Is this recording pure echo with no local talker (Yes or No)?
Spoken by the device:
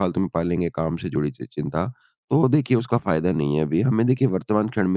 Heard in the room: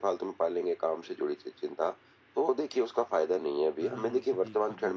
No